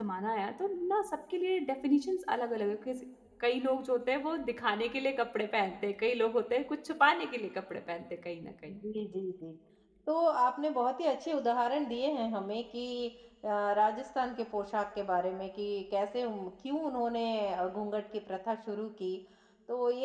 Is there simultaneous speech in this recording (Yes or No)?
No